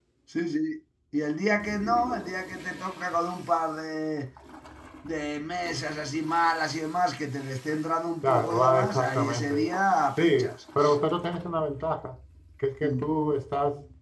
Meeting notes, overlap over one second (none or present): present